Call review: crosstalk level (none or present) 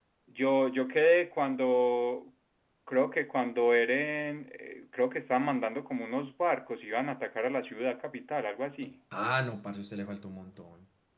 none